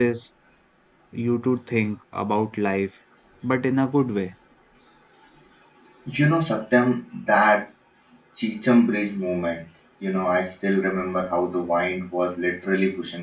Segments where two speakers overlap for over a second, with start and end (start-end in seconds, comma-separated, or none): none